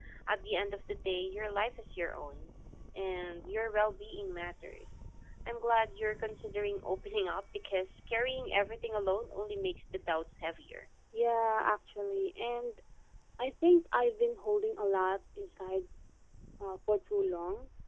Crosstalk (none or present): none